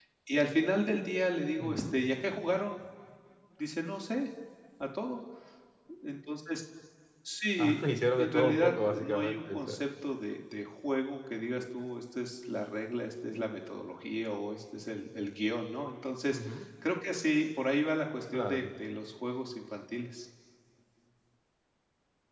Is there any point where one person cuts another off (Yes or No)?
Yes